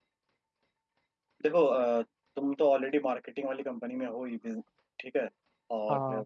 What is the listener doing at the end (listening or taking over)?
listening